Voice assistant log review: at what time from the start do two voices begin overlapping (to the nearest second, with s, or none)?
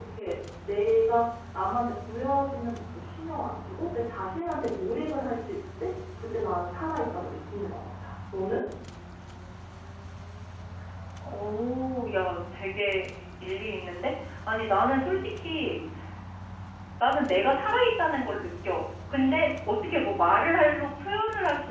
none